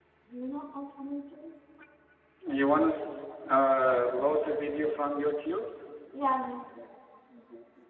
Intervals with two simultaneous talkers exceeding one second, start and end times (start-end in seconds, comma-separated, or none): none